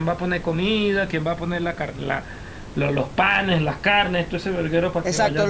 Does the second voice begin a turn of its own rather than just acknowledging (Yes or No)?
Yes